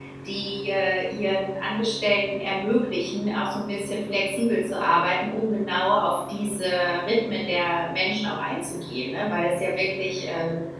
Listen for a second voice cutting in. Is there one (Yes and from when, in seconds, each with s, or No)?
No